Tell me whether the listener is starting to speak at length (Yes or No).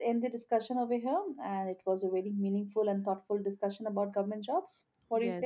Yes